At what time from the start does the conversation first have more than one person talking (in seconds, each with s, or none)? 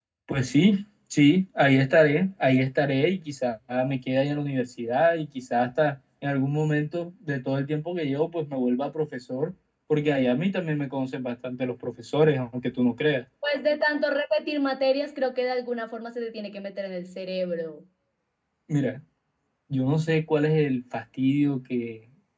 none